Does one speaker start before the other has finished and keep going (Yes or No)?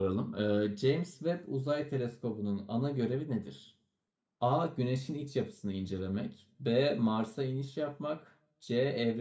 No